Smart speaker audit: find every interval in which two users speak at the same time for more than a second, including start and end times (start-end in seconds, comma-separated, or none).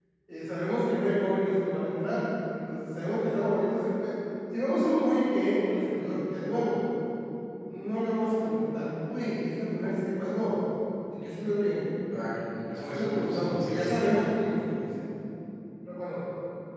12.8-14.1